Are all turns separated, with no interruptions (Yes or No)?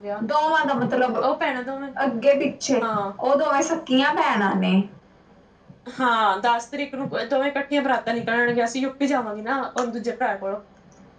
Yes